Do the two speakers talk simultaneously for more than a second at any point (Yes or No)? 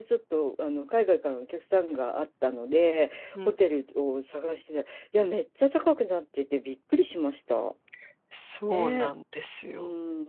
No